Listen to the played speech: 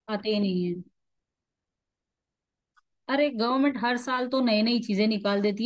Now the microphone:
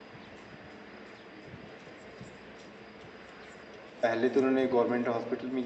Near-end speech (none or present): present